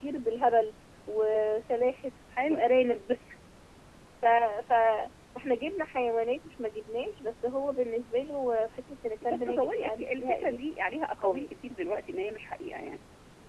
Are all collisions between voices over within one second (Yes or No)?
No